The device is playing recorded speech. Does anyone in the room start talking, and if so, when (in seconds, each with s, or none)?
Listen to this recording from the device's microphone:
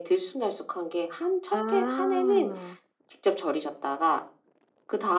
1.5 s